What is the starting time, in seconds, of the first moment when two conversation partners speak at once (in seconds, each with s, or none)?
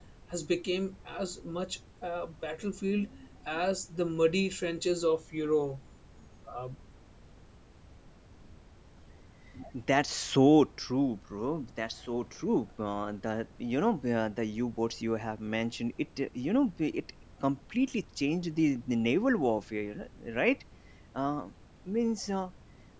none